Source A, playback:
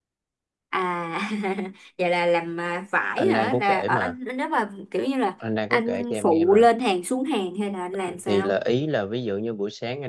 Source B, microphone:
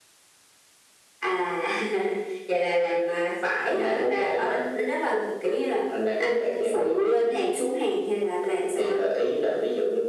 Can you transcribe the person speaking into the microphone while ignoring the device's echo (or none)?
none